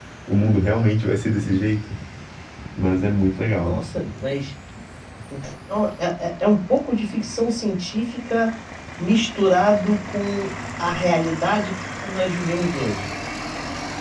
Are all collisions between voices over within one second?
Yes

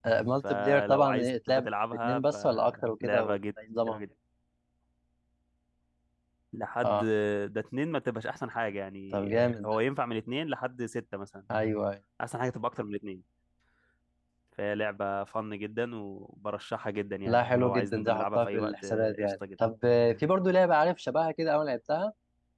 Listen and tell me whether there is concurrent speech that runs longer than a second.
Yes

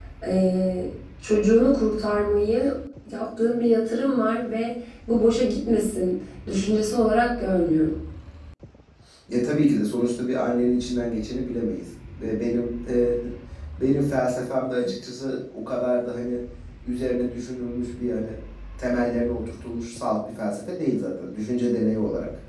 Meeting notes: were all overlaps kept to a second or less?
Yes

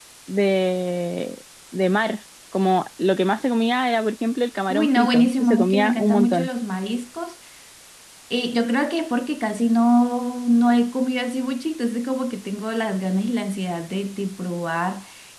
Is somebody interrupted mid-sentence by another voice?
Yes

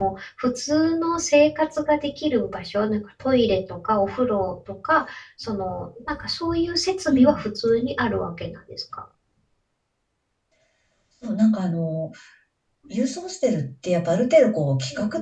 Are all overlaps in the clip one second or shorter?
Yes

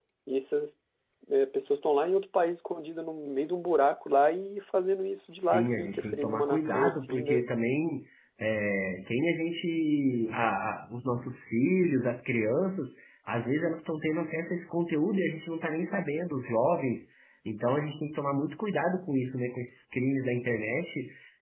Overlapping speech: Yes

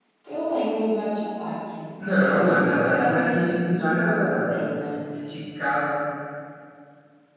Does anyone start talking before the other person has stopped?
Yes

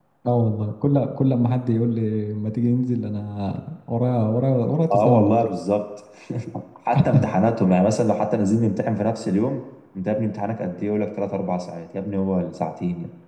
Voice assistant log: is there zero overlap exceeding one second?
Yes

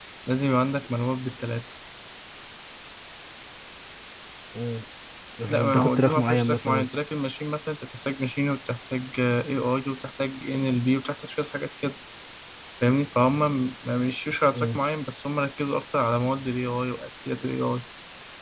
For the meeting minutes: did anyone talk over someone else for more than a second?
Yes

